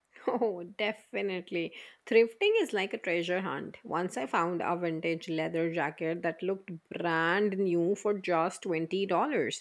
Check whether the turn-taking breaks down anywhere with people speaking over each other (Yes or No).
No